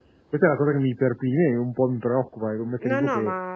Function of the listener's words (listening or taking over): taking over